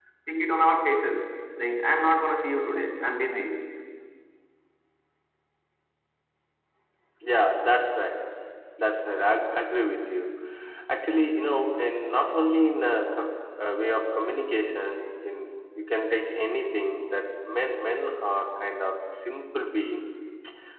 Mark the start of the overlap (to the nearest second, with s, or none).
none